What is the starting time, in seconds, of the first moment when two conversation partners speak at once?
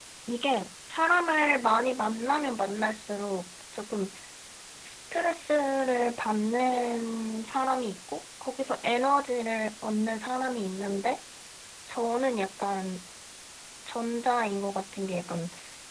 none

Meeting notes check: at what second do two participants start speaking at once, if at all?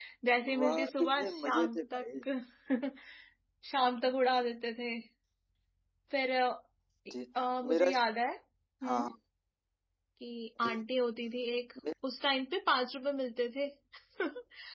0.6 s

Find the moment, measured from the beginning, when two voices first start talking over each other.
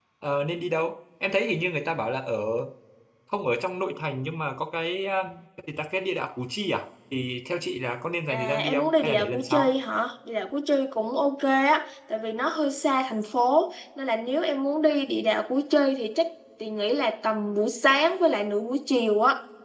8.3 s

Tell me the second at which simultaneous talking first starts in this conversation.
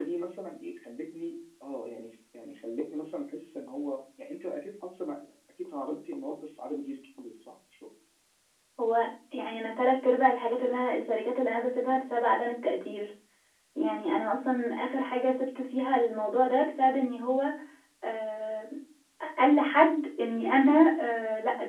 none

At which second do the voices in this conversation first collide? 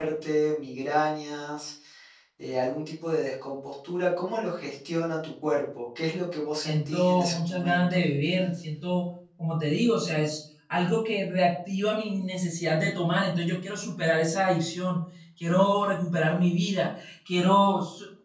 6.6 s

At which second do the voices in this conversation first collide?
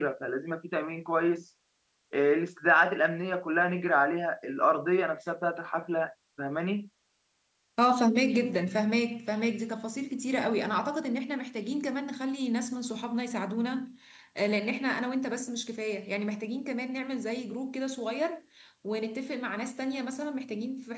none

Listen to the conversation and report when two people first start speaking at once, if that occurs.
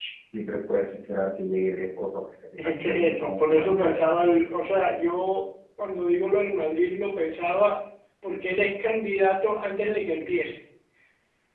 2.6 s

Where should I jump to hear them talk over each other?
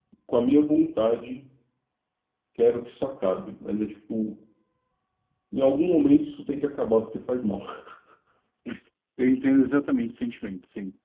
none

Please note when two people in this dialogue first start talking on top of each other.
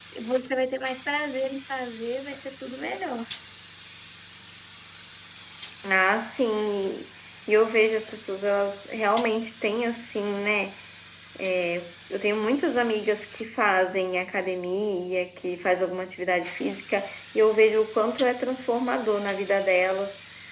none

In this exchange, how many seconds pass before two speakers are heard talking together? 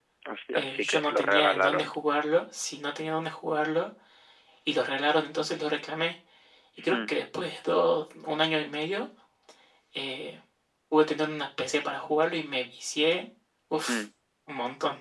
0.5 s

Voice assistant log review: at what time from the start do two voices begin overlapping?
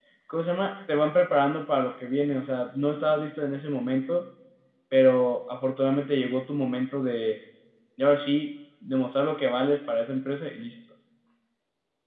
none

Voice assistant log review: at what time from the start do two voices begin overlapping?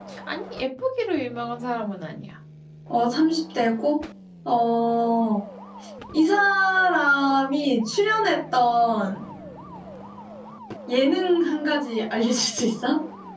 none

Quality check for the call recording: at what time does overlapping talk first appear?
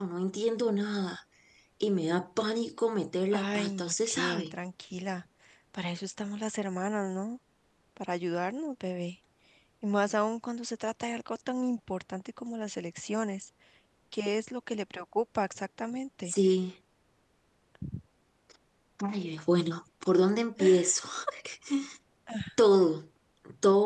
3.3 s

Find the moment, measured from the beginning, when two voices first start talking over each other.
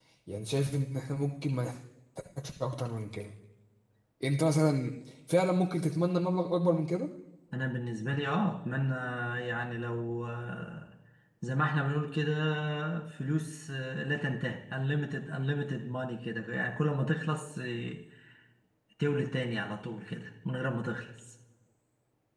none

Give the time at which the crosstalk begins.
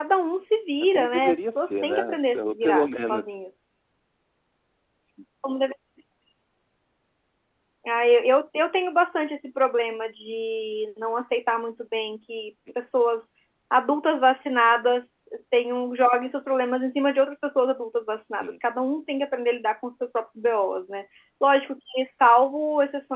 0.9 s

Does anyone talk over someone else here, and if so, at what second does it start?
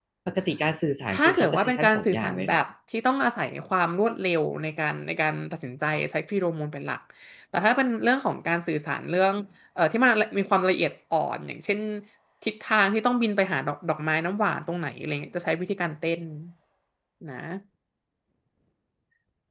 1.1 s

